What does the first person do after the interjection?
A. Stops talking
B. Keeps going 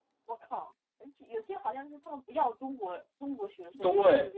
A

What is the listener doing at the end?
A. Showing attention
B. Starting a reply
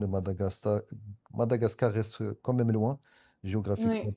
A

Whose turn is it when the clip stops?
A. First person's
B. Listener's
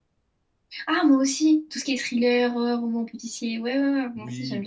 B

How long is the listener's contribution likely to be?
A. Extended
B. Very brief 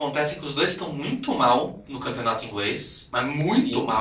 B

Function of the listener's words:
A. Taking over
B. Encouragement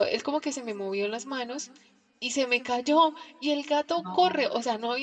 B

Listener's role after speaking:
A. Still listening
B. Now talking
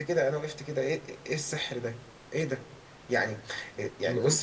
A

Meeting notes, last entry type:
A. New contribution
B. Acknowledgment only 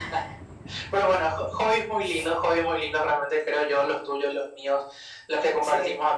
B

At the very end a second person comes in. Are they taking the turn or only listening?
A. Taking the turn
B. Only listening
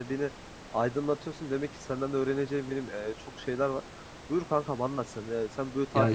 B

